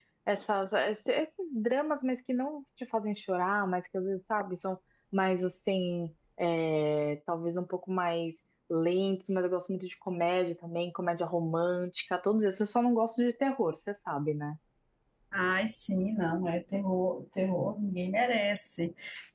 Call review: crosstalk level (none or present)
none